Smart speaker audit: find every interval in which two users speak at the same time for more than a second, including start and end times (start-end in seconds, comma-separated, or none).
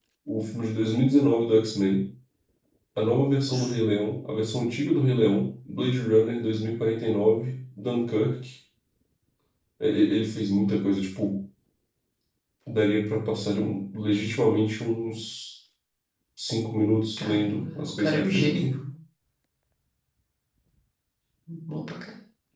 17.2-18.6